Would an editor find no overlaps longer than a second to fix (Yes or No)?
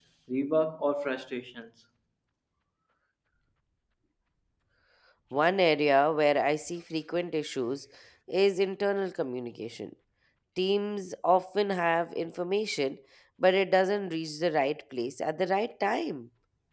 Yes